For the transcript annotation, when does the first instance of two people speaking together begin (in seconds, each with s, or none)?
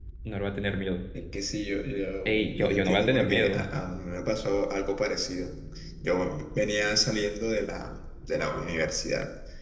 2.2 s